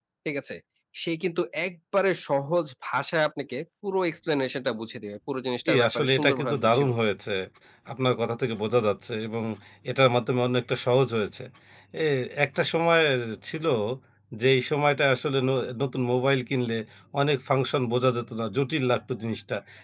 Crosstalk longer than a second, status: present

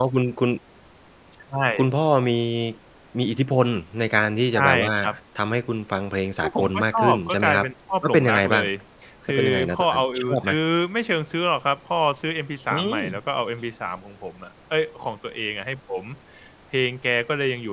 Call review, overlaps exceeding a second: present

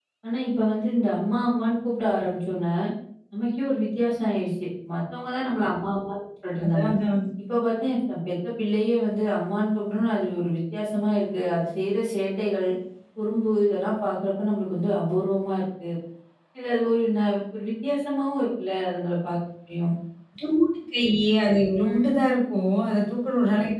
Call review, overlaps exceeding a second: none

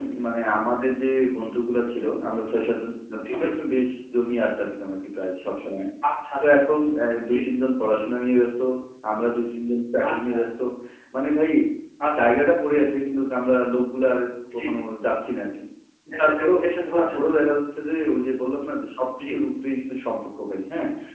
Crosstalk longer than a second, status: none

